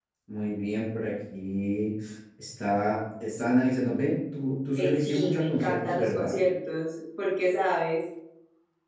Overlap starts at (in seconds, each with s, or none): 4.8 s